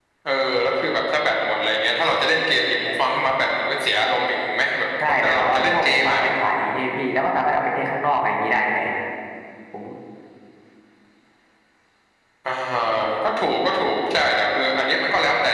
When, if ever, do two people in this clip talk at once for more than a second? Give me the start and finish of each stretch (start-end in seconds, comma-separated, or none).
5.0-6.2